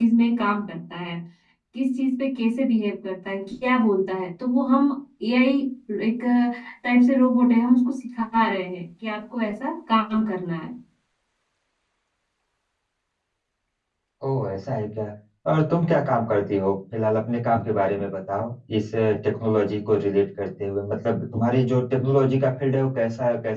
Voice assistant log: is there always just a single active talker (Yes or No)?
Yes